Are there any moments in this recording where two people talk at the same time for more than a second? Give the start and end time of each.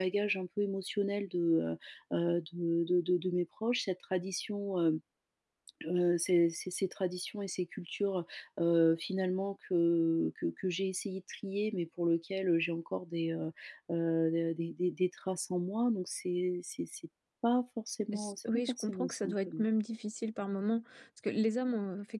18.1-19.6

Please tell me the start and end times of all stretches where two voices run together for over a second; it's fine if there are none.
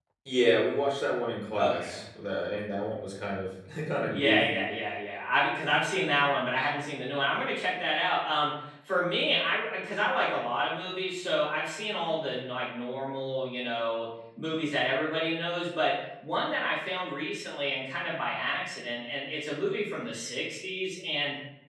none

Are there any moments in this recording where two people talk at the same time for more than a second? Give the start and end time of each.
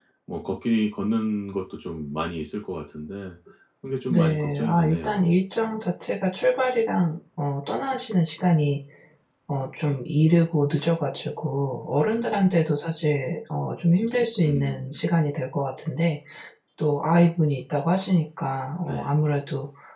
4.1-5.4

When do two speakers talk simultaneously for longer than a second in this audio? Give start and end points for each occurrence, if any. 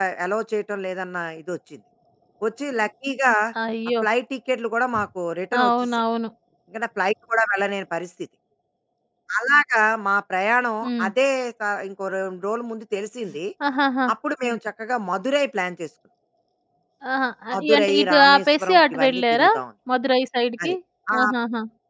17.5-19.5

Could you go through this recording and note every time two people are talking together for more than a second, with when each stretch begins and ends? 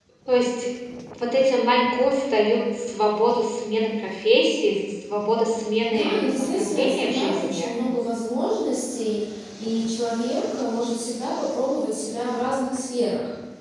5.9-7.7

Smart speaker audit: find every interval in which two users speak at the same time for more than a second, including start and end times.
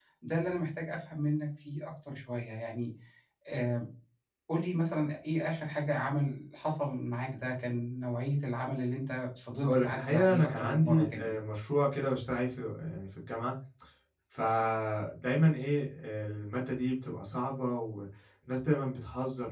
9.6-11.4

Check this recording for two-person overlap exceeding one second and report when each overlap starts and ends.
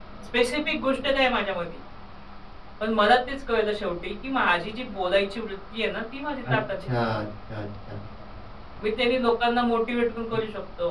none

